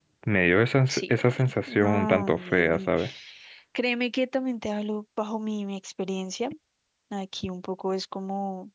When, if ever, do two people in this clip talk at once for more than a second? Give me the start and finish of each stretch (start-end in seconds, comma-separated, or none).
0.9-2.9